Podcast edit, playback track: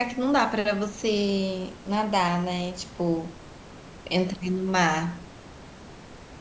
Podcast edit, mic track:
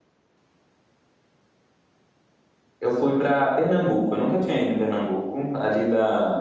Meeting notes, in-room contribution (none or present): present